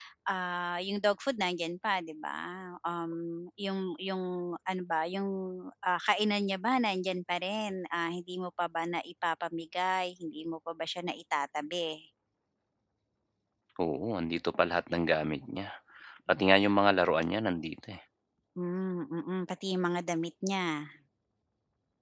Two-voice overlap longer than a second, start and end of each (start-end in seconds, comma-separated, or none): none